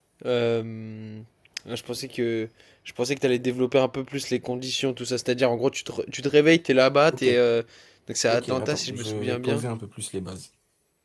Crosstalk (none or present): present